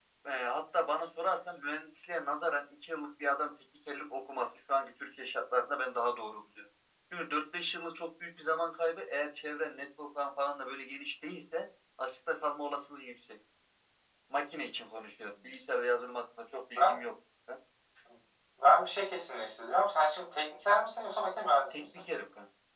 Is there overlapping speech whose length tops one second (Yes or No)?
No